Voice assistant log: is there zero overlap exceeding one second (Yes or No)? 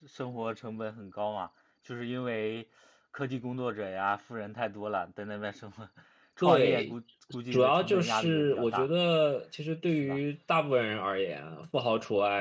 No